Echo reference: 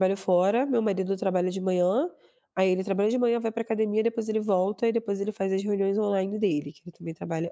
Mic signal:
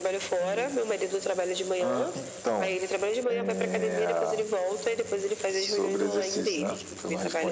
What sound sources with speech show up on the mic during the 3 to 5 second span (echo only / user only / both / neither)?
both